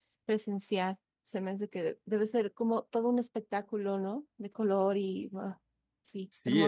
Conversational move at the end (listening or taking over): taking over